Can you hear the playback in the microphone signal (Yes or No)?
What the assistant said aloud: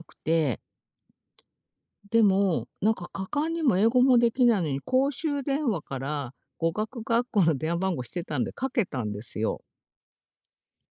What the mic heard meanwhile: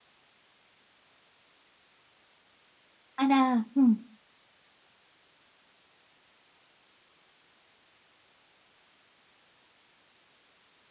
No